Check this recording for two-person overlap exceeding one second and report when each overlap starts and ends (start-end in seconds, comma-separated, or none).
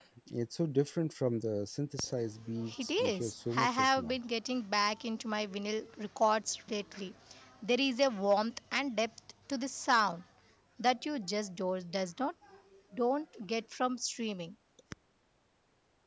2.8-4.2